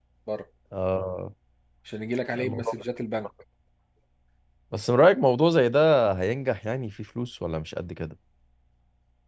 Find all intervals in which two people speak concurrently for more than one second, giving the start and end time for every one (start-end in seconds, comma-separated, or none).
none